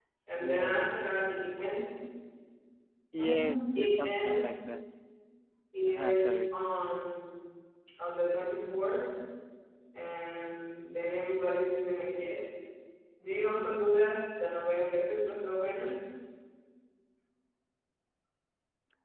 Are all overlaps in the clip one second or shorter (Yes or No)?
No